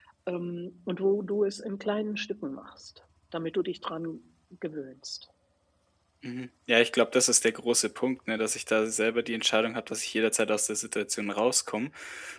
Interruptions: none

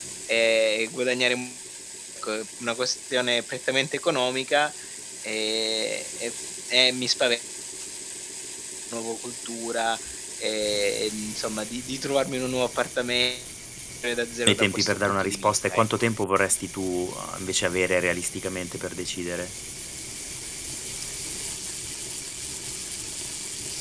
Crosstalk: present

